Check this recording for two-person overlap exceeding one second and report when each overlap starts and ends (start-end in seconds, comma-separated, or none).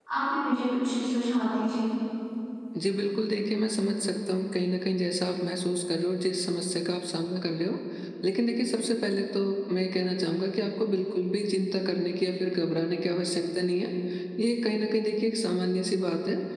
none